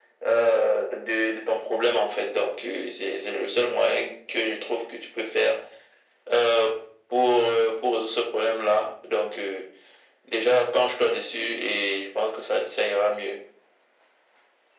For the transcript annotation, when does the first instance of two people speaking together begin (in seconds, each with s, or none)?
none